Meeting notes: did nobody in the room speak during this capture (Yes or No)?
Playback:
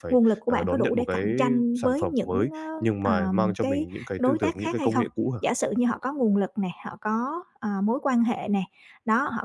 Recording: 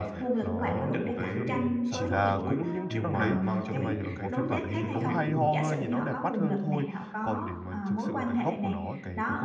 No